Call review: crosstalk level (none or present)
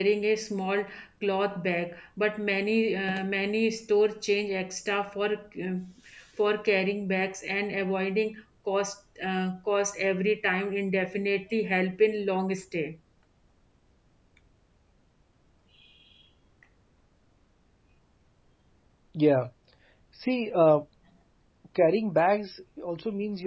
none